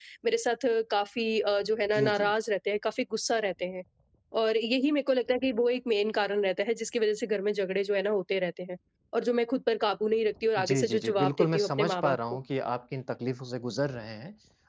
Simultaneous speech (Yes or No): Yes